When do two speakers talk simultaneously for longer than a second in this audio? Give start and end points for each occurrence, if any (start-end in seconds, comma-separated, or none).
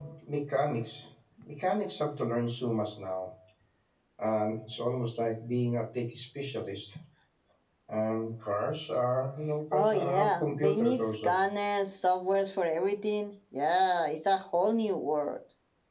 9.7-11.3